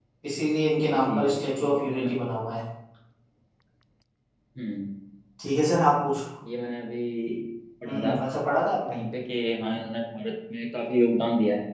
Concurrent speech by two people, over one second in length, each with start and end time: 0.9-2.1

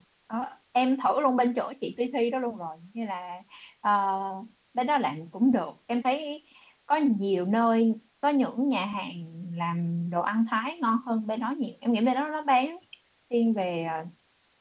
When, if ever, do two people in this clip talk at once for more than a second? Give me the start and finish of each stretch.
none

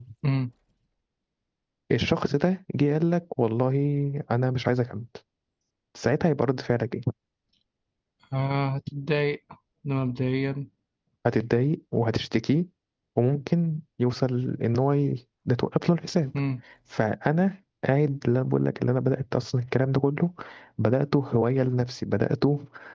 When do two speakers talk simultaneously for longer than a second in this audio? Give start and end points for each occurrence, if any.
none

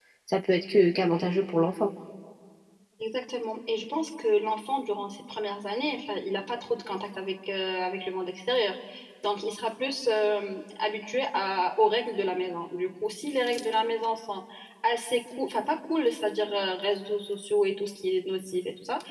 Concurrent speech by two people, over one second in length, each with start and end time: none

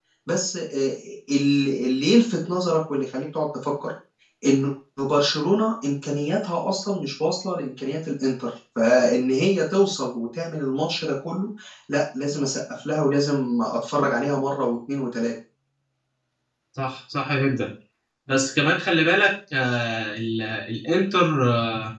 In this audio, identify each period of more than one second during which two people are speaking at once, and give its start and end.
none

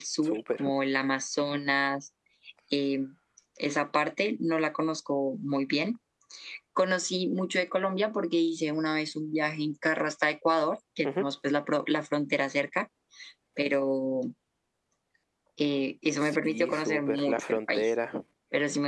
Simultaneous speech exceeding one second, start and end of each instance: 16.2-17.9

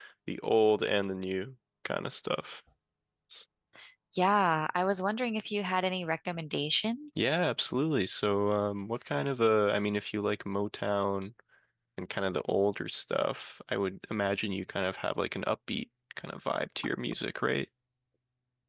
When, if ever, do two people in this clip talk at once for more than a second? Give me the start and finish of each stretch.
none

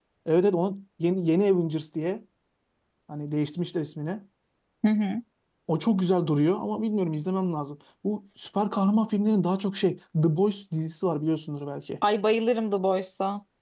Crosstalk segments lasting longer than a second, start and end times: none

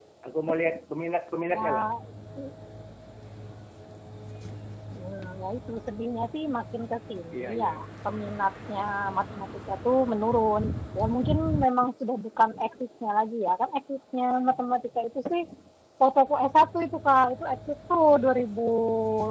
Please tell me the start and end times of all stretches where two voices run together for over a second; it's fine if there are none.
none

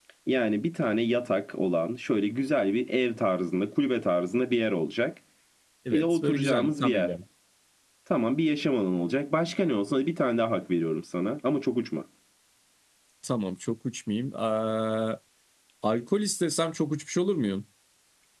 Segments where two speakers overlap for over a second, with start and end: 5.9-7.1

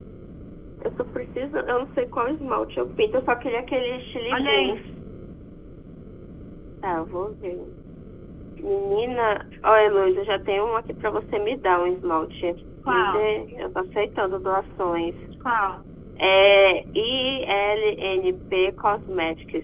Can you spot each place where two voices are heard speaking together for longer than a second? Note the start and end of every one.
none

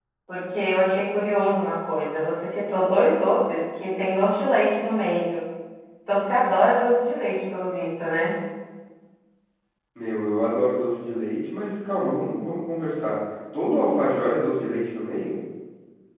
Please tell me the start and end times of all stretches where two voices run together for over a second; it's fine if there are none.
none

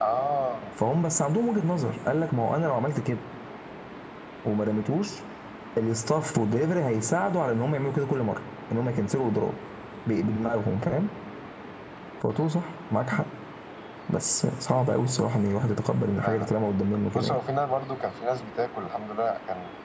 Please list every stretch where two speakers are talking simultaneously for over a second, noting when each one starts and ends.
none

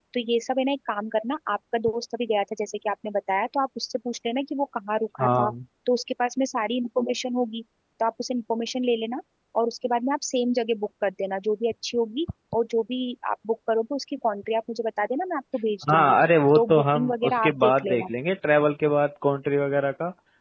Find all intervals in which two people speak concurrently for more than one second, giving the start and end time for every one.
16.6-18.1

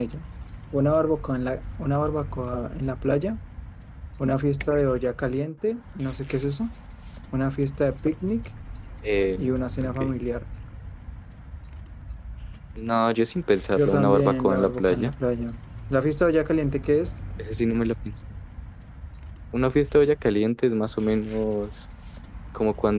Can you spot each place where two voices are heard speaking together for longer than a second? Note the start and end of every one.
13.8-15.1

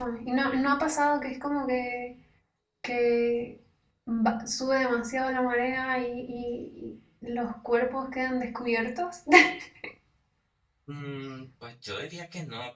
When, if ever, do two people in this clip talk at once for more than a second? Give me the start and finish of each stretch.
none

